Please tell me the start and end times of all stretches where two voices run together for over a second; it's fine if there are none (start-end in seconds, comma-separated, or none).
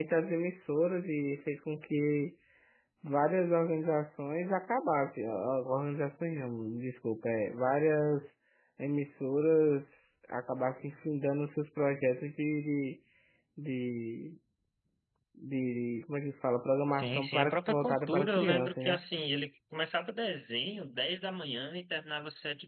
16.9-19.0